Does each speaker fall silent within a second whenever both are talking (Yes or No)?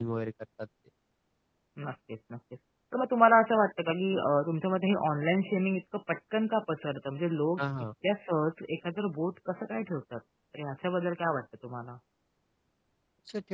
Yes